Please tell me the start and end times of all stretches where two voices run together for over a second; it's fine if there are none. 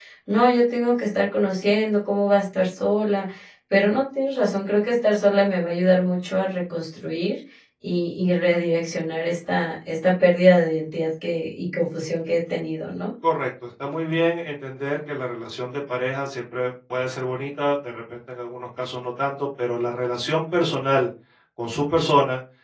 none

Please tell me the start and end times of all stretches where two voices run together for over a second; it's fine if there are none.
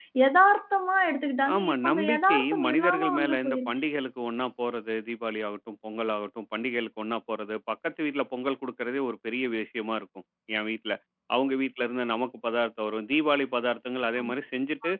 1.5-3.8

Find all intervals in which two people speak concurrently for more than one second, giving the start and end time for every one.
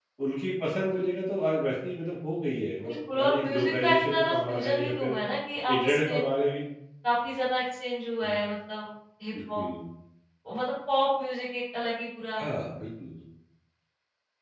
2.9-5.2

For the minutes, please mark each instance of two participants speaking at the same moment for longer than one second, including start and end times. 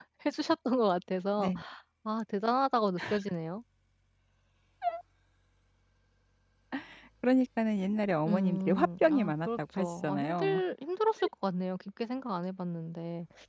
8.3-10.6

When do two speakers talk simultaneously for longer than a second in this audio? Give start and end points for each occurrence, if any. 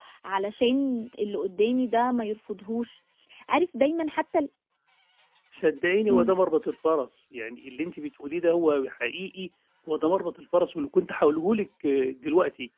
none

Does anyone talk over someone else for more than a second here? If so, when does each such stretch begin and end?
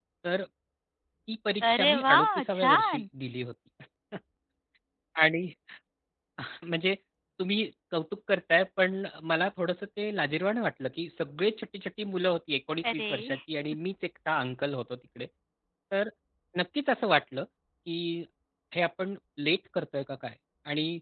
1.7-3.0

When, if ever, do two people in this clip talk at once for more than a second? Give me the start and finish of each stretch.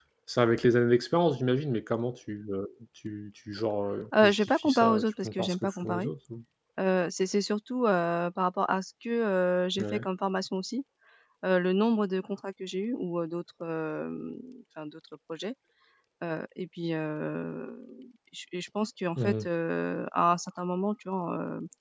4.2-6.1

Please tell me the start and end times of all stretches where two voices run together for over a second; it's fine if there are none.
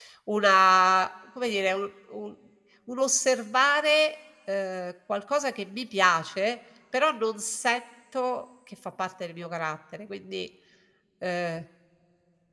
none

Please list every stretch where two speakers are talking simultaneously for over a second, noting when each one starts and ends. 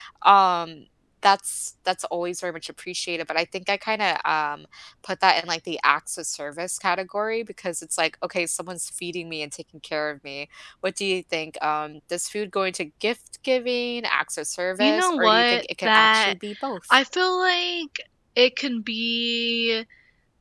14.8-16.3

